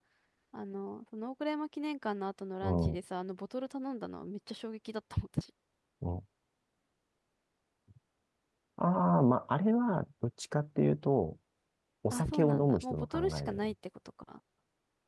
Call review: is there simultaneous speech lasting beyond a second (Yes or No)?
Yes